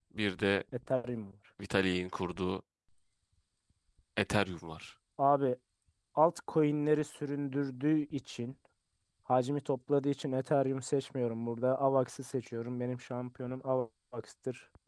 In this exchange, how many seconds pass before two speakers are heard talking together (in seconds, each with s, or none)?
none